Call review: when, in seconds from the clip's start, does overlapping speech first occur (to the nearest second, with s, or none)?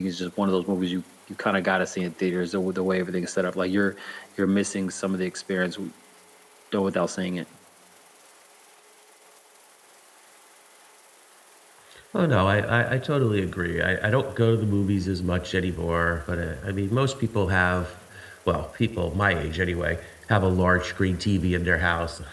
none